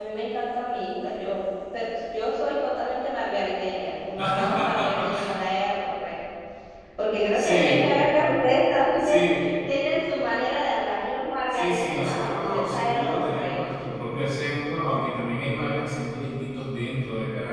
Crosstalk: present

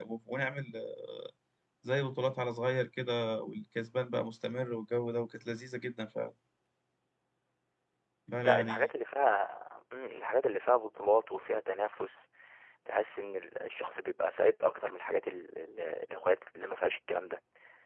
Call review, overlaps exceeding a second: none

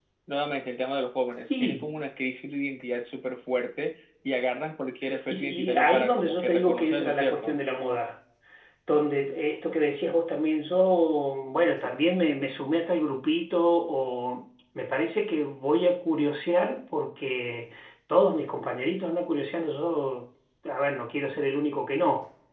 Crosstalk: present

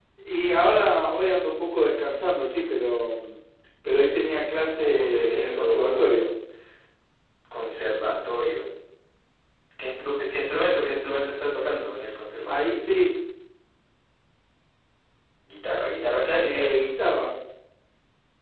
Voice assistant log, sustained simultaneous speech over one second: present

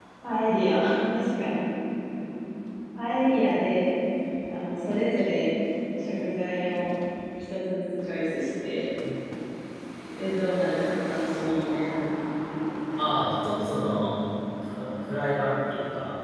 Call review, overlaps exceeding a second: none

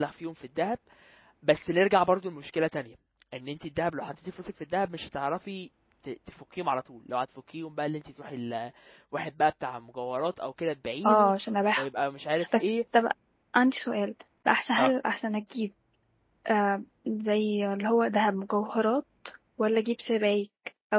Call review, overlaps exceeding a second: none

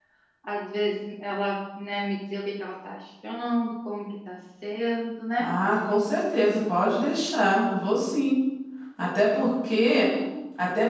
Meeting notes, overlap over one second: none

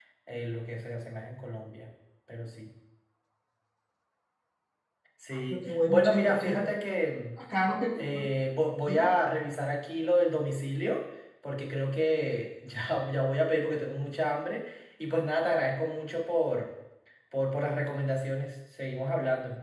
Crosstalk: present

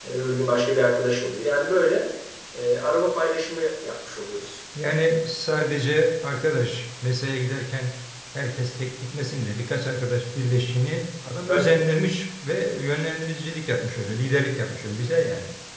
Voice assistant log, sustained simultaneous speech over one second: none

